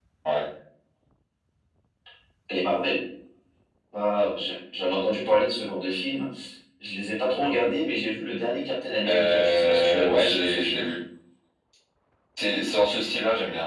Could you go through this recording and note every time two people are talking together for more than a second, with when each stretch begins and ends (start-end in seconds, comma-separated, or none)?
9.1-10.9